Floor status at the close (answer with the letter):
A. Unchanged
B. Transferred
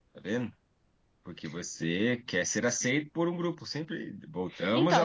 B